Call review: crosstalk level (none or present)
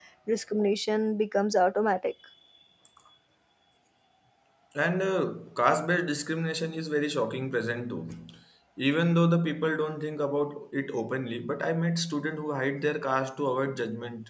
none